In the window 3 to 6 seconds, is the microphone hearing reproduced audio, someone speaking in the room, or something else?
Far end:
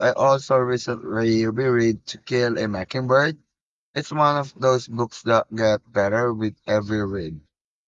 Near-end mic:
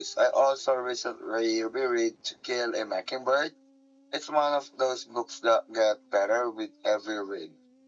echo only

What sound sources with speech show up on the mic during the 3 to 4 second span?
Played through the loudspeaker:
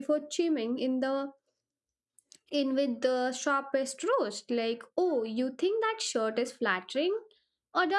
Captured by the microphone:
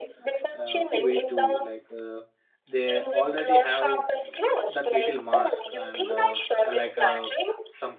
both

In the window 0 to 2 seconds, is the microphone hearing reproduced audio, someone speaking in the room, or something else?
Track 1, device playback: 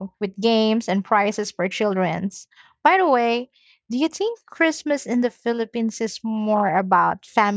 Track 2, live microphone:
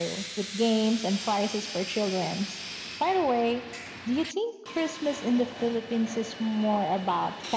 echo only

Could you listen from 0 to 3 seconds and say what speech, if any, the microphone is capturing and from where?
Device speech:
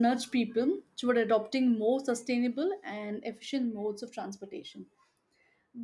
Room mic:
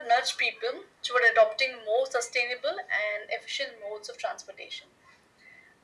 echo only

